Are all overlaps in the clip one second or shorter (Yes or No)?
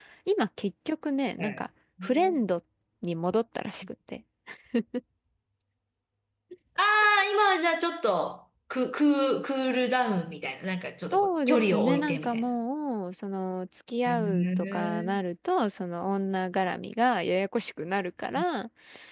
No